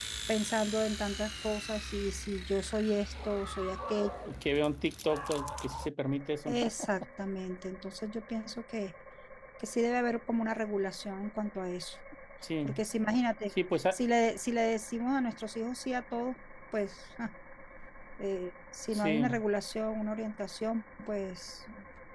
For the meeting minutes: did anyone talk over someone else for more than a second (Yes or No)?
No